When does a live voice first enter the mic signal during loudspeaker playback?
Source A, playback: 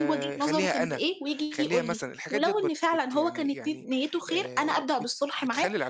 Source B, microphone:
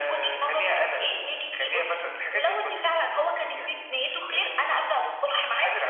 none

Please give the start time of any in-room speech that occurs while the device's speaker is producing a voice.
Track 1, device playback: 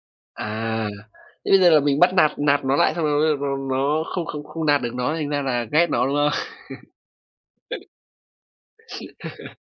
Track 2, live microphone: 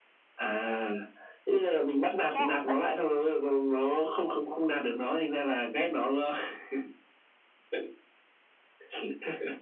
2.3 s

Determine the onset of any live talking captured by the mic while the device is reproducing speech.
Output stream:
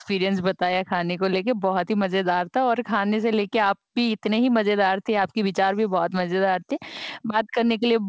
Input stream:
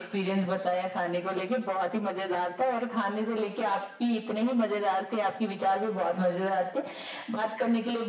none

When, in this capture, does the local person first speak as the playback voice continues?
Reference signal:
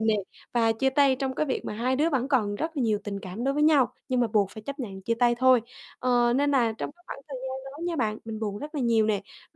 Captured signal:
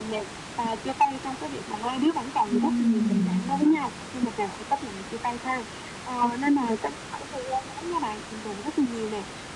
2.5 s

